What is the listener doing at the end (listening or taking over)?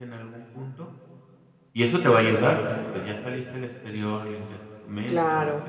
taking over